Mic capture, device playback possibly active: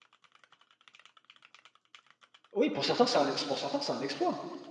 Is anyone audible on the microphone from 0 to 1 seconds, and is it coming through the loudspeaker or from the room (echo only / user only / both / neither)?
neither